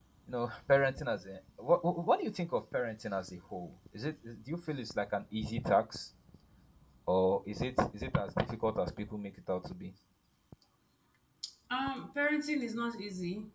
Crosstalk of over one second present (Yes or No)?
No